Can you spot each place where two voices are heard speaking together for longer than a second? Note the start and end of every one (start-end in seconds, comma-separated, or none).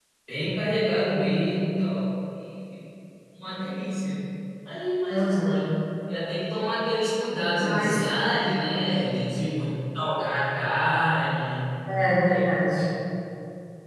none